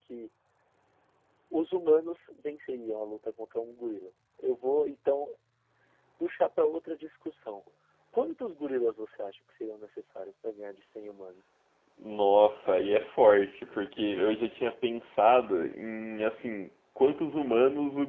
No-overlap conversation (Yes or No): Yes